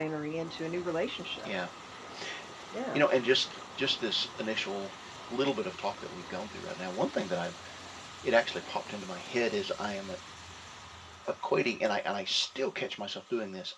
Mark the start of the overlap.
none

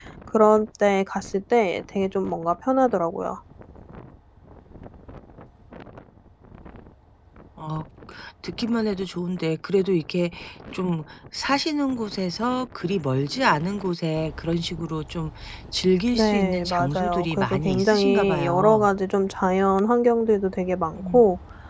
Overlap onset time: 16 s

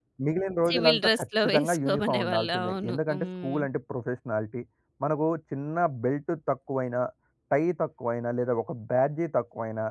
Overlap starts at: 1 s

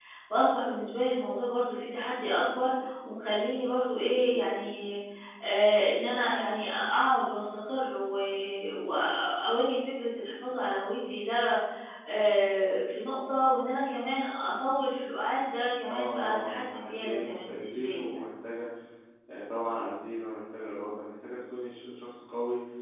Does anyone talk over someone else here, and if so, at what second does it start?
16 s

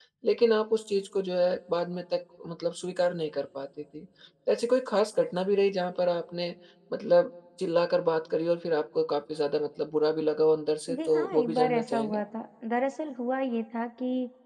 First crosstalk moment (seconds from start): 11 s

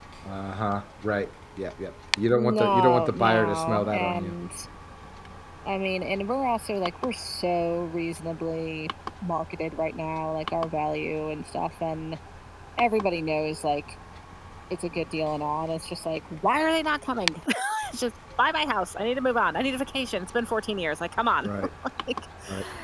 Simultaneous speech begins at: 2 s

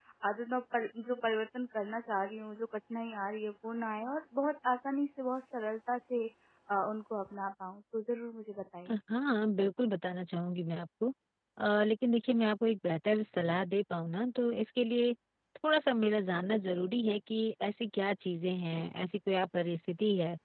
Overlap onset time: none

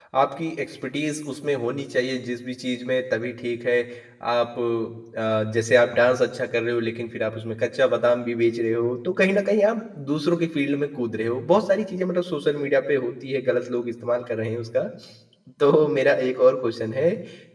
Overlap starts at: none

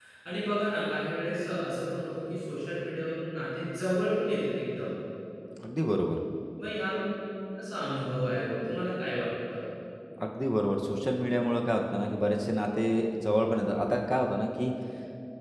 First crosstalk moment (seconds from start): none

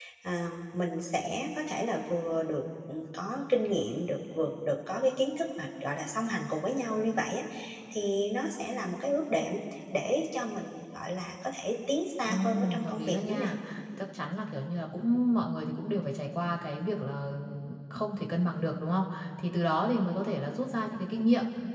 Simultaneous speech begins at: 12 s

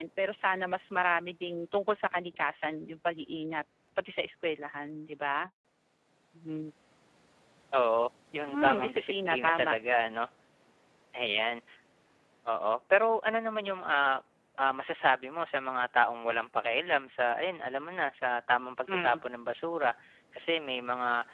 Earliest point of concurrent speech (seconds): 8 s

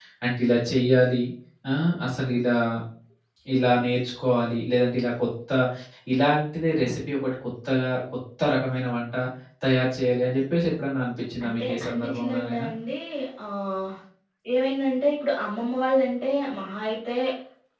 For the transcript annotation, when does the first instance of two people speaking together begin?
11 s

